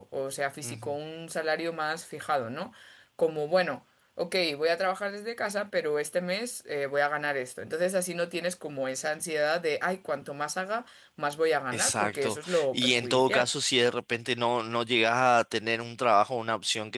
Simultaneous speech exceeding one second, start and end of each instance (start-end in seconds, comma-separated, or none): 11.7-13.5